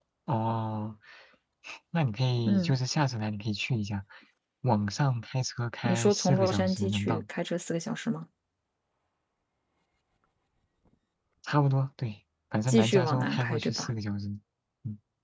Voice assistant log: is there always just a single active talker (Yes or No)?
No